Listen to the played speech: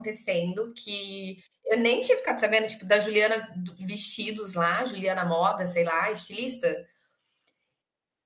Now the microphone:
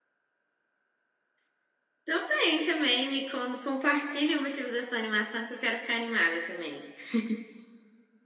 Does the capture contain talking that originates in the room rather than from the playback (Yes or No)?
Yes